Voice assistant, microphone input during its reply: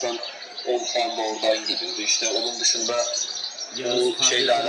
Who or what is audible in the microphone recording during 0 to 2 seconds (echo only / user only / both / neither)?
echo only